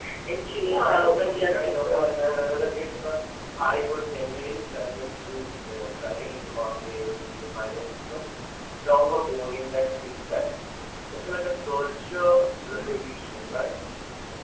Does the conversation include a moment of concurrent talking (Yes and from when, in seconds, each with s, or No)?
Yes, from 0.6 s